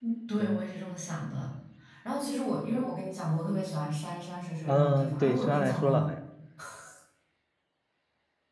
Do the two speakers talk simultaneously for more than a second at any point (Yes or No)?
Yes